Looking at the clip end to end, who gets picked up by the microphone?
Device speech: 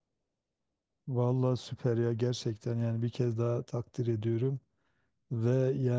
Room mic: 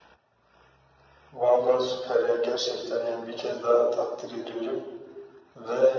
echo only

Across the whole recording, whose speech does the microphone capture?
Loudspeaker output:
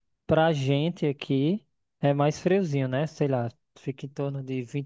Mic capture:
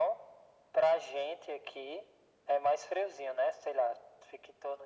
echo only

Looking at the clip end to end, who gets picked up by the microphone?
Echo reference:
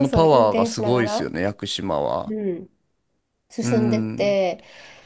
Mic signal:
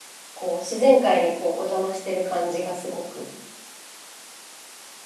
user only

